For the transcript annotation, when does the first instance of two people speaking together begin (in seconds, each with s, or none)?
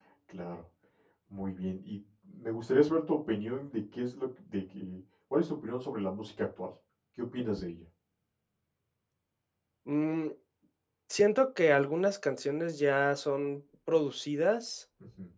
none